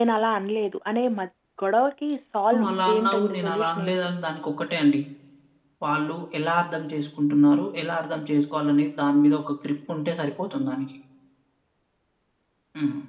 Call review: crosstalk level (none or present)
present